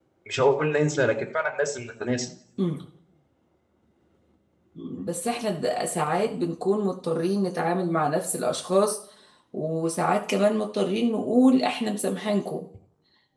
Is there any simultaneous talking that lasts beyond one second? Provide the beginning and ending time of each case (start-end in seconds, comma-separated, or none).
none